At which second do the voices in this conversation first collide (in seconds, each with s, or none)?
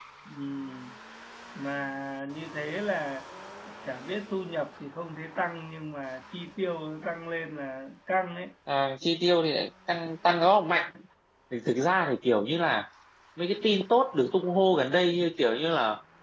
none